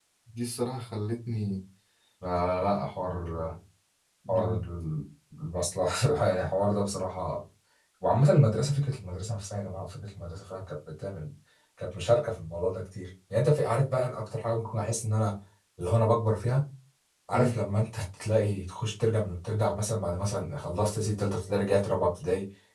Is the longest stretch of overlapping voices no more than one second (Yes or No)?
Yes